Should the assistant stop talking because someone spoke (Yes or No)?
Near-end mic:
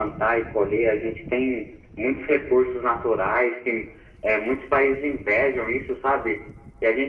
No